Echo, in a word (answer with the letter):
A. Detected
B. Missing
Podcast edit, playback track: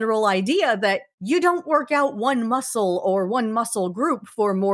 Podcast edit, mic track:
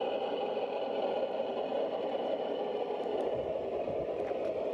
B